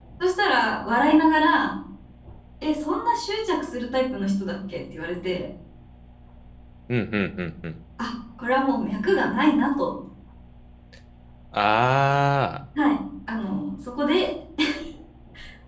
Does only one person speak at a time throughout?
Yes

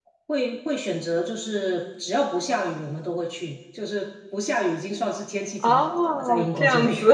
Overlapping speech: Yes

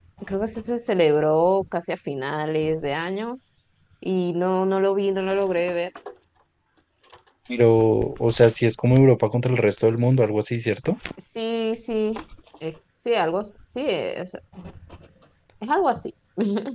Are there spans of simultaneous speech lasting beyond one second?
No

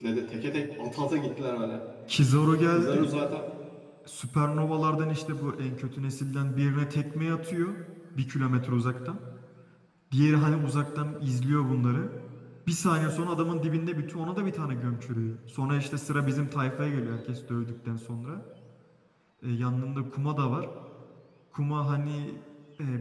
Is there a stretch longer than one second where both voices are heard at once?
No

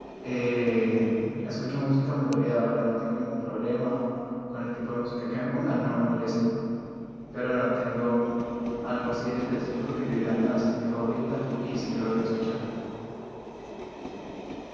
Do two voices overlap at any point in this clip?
No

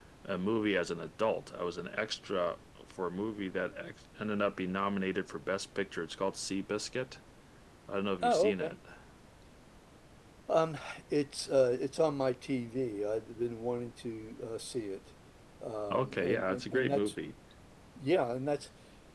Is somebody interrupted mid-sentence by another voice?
Yes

